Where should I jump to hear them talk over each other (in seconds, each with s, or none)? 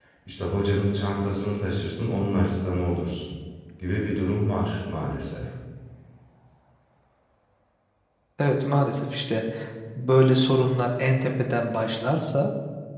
none